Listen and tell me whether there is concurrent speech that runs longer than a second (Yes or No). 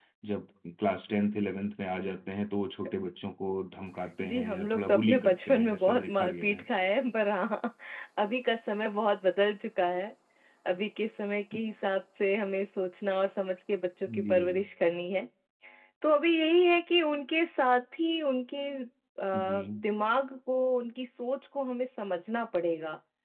Yes